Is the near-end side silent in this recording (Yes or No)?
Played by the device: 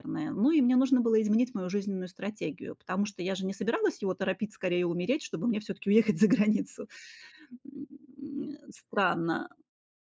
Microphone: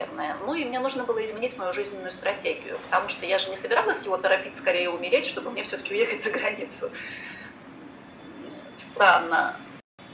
Yes